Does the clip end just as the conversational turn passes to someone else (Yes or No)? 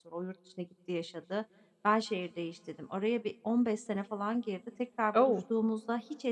No